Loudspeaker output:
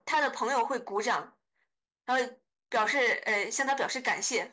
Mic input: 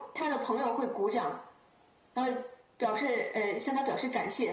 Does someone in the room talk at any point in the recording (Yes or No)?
No